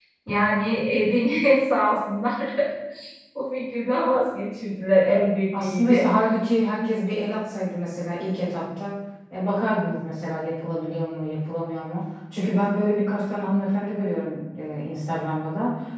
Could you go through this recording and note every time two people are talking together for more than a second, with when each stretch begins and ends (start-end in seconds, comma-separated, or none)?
none